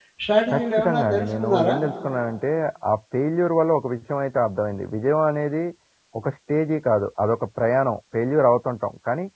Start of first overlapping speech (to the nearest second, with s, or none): 1 s